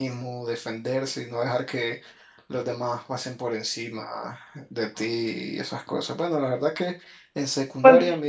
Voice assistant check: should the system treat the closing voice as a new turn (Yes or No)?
No